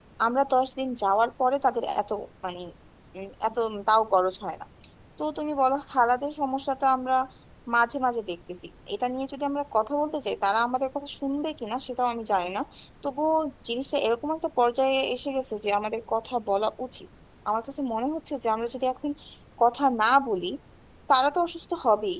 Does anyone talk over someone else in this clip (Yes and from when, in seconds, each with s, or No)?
No